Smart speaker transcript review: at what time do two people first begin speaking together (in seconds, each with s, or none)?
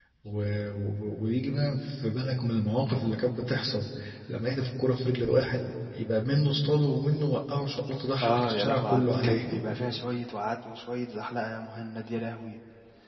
8.2 s